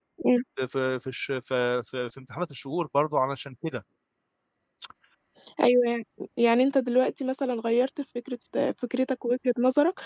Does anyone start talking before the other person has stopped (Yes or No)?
No